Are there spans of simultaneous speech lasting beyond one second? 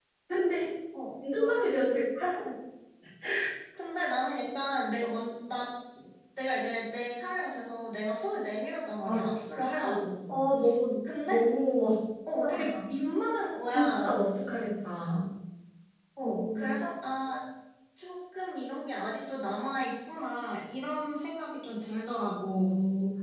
No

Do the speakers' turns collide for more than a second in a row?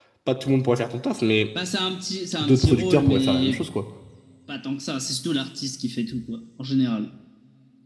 Yes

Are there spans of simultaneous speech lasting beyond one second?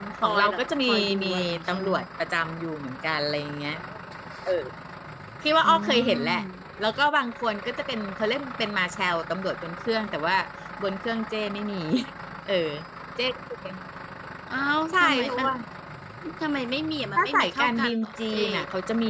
Yes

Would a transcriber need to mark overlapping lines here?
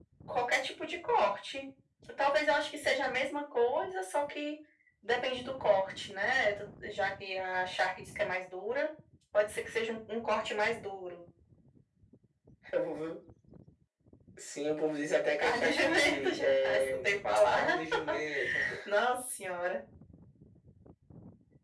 Yes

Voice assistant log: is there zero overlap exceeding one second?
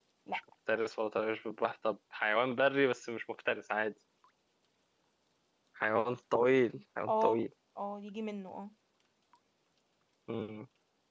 Yes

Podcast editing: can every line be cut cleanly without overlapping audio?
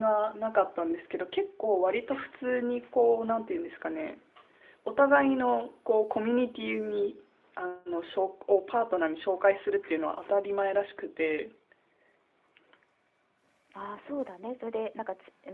Yes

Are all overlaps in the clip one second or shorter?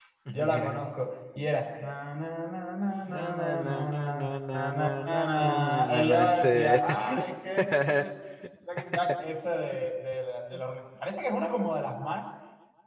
No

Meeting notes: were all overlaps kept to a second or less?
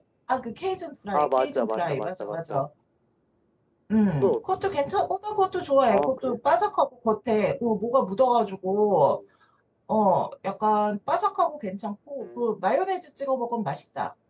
No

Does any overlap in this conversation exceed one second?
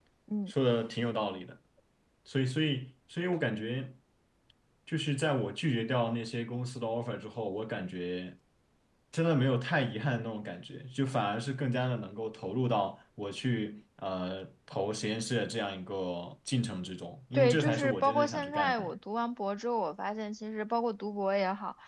Yes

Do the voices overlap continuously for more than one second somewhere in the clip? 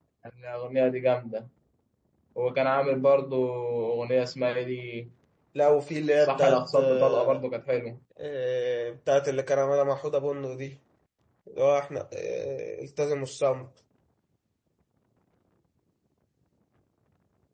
Yes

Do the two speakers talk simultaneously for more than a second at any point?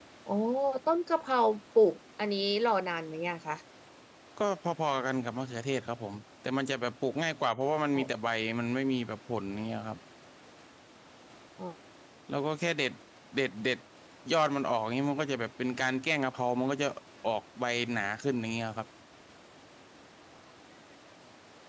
No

